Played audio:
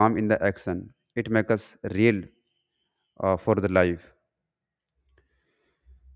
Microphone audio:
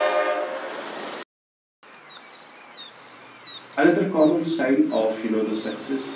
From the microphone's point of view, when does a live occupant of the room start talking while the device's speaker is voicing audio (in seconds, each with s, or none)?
3.8 s